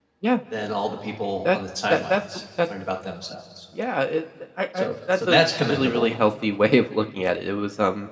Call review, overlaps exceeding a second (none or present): present